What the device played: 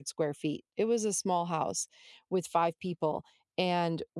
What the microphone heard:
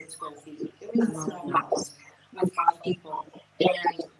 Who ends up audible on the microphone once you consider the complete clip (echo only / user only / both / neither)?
both